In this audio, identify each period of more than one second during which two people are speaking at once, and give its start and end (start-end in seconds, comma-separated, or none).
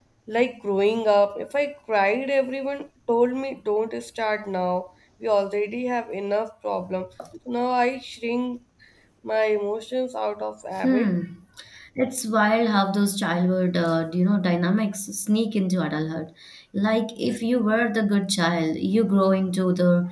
none